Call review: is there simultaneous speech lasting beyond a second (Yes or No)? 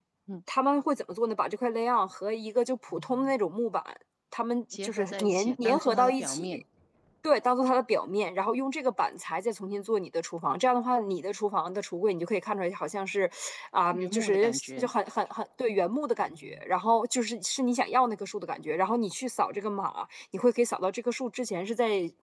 Yes